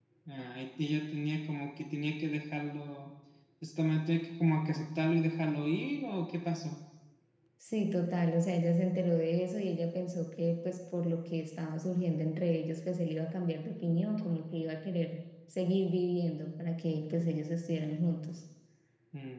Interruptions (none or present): none